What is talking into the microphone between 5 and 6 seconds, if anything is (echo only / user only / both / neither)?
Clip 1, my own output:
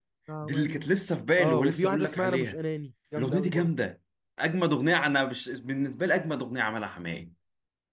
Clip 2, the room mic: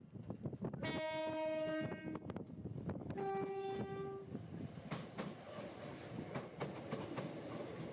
neither